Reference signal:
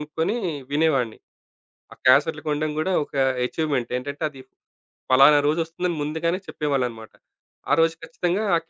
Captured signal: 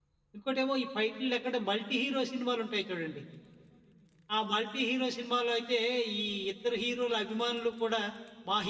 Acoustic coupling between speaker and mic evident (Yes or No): No